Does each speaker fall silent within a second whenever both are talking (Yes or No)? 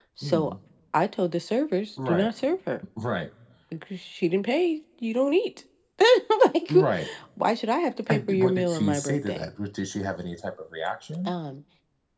No